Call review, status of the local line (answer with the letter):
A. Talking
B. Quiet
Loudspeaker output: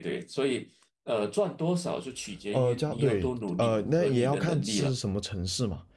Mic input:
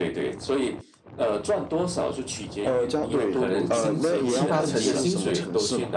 A